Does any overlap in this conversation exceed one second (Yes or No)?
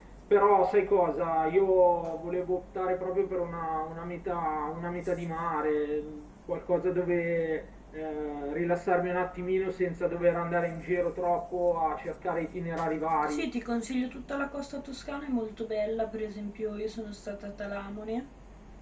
No